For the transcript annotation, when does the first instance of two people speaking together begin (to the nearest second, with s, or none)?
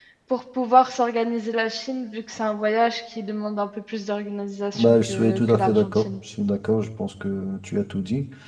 5 s